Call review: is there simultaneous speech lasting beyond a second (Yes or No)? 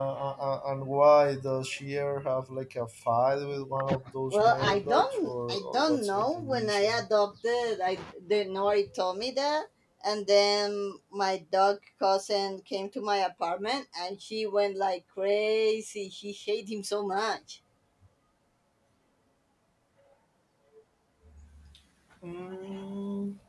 Yes